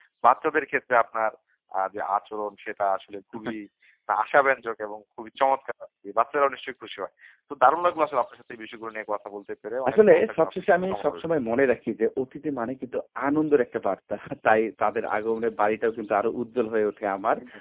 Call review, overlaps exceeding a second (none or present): present